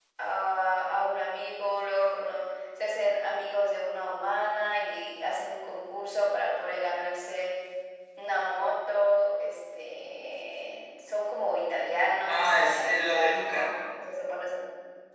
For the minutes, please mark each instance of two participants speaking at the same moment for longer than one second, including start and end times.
12.2-13.5

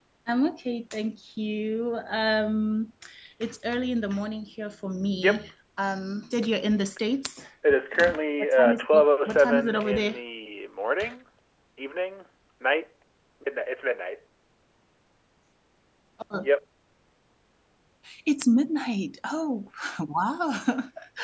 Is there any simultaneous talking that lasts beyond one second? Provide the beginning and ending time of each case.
8.4-10.2

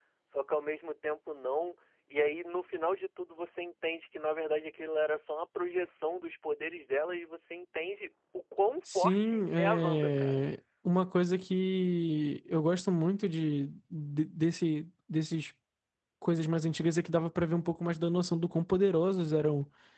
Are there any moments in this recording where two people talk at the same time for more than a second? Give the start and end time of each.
8.9-10.4

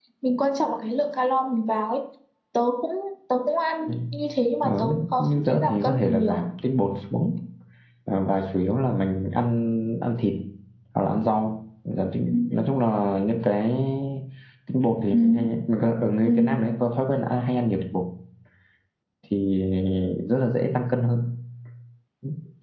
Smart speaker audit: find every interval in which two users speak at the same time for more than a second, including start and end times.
4.6-6.4

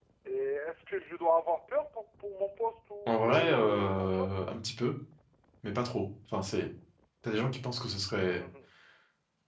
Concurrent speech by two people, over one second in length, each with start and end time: 3.1-4.3

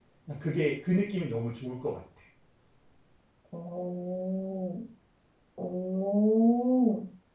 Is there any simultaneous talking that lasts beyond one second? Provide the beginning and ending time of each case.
none

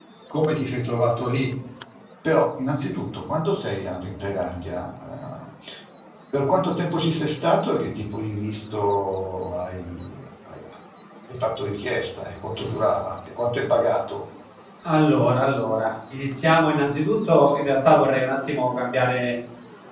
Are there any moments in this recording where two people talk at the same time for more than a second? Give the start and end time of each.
none

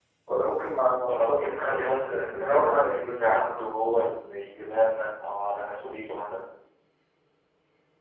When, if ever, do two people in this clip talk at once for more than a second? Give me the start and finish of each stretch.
1.0-3.7

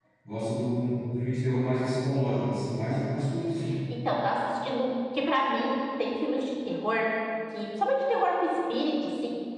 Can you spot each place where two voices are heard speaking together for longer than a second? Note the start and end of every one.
none

